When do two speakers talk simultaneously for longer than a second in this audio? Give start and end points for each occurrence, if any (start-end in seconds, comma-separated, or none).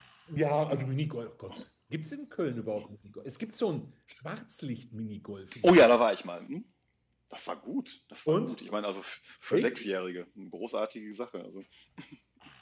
none